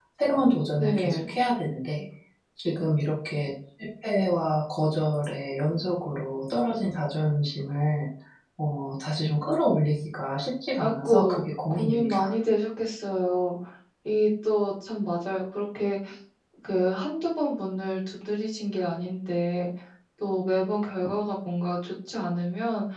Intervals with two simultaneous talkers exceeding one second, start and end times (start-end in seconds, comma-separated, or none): 10.8-12.2